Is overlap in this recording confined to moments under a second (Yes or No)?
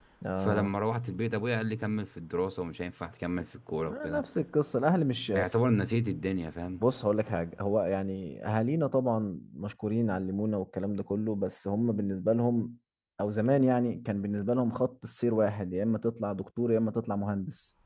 Yes